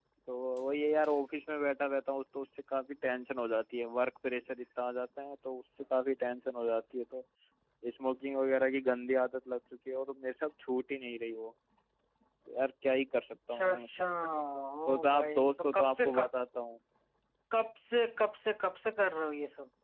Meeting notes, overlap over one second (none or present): present